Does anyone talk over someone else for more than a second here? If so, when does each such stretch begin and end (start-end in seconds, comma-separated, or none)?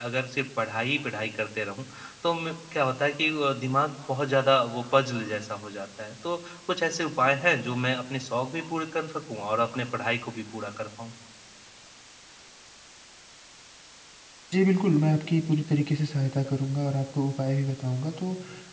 none